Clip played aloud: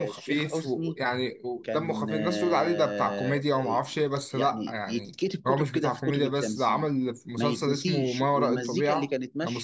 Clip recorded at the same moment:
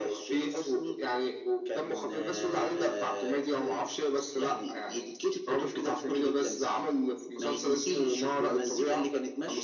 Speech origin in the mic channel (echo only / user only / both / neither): echo only